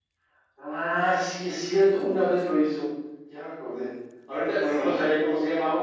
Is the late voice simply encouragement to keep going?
Yes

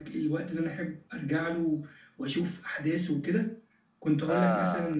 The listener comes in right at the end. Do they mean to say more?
No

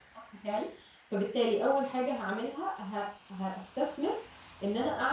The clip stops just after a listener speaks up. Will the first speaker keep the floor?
Yes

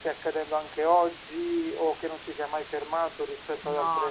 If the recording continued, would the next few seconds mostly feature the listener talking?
Yes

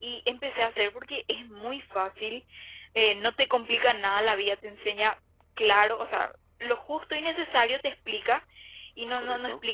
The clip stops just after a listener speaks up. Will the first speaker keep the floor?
Yes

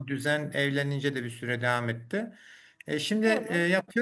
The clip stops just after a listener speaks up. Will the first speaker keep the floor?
Yes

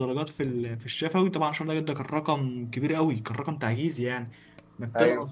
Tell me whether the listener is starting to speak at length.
No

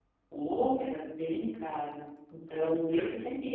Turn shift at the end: No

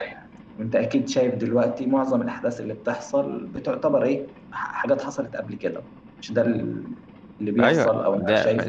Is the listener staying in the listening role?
No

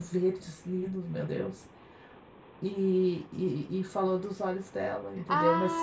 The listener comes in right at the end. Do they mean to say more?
Yes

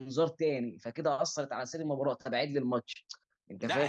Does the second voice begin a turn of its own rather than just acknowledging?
Yes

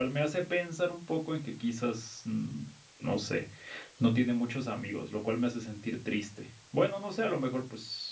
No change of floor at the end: Yes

